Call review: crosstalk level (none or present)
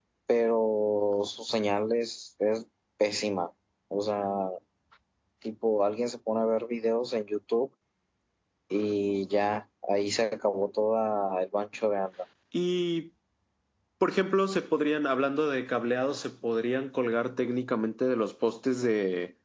none